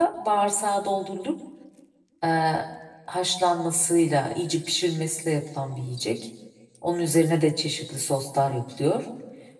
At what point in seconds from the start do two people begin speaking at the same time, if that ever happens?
none

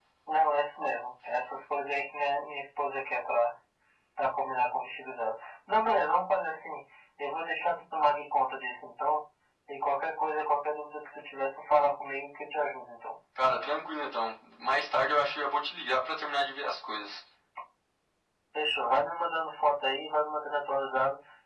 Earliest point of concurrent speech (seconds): none

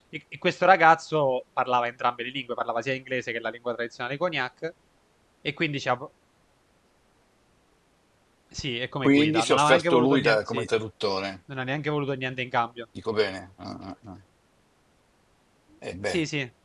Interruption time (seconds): 9.0 s

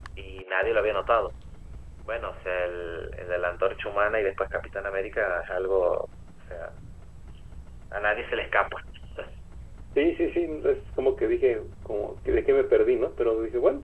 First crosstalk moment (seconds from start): none

